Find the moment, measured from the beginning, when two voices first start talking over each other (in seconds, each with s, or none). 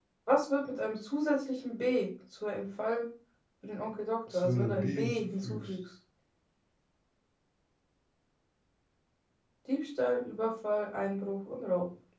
4.3 s